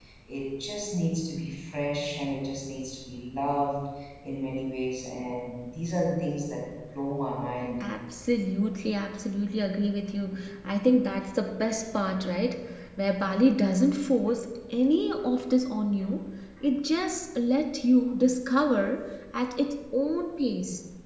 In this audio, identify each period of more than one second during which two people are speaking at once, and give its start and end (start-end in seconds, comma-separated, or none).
none